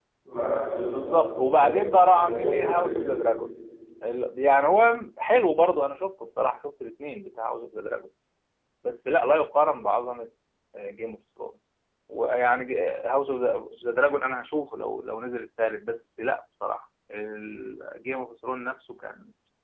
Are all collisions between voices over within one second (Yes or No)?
No